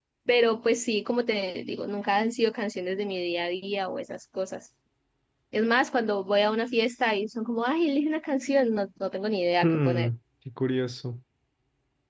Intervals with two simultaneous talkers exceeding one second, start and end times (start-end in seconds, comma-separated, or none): none